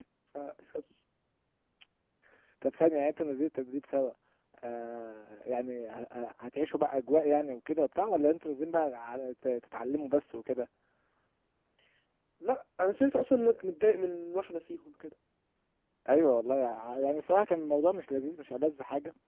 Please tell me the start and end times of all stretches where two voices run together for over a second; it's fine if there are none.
none

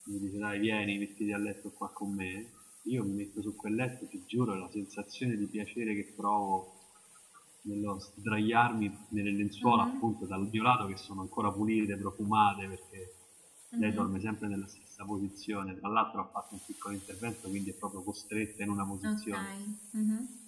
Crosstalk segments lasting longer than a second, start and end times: none

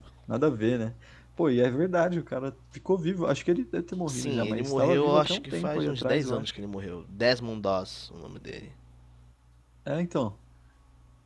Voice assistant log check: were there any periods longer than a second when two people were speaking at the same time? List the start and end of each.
4.1-6.4

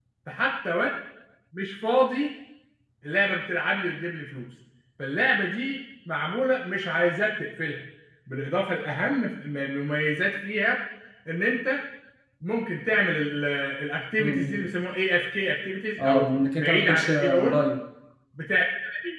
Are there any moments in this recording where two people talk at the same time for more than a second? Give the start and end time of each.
16.0-17.6

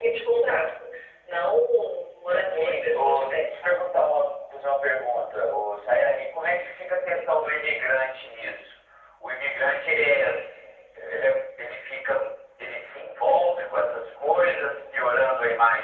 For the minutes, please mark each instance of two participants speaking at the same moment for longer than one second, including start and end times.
2.5-3.8

